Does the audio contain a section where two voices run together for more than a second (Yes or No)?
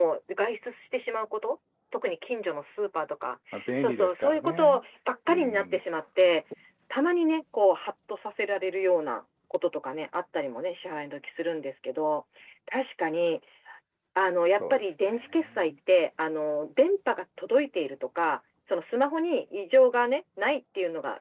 Yes